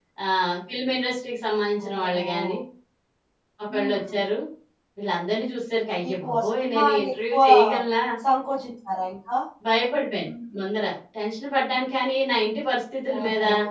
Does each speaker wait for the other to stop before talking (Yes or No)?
No